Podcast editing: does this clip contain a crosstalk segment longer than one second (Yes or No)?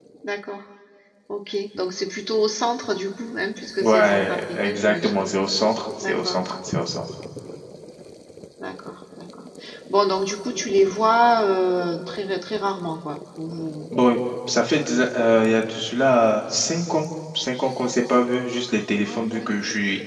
Yes